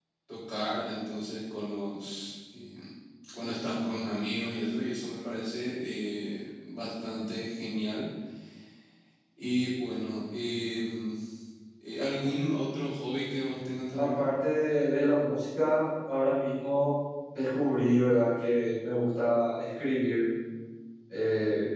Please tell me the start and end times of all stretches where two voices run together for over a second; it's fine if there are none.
none

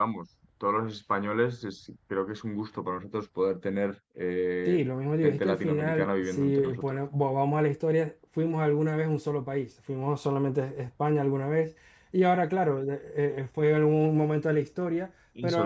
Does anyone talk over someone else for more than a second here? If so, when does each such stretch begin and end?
5.2-6.8

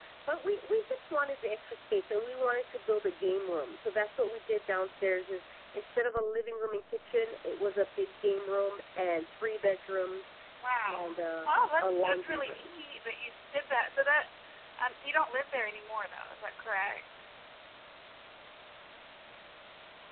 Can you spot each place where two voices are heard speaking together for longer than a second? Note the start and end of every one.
10.8-12.7

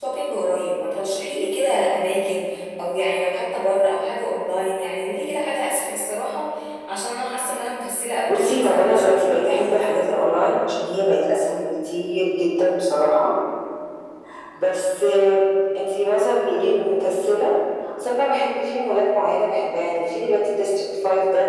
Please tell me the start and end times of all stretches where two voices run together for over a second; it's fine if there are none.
8.3-10.0

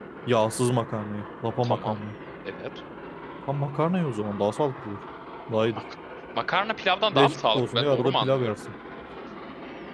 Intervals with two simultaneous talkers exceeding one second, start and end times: 7.1-8.5

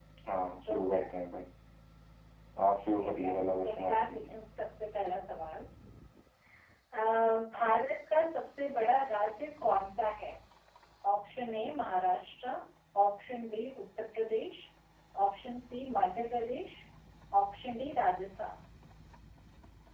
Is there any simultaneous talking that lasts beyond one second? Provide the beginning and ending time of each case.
2.9-4.3

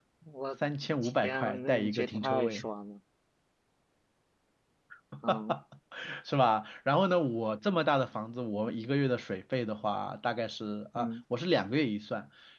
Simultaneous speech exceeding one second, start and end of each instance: 1.0-2.6

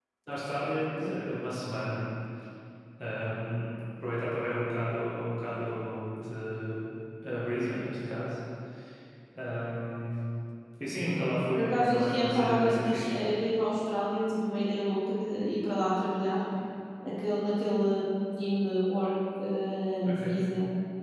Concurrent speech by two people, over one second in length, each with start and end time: 11.5-13.2

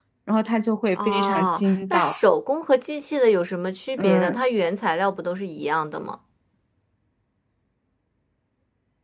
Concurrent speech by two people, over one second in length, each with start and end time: 1.0-2.2

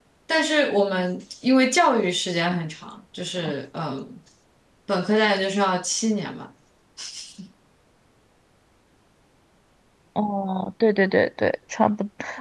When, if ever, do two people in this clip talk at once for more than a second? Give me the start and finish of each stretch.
none

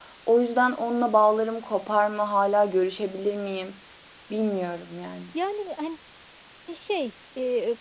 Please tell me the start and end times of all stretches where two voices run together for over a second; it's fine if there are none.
none

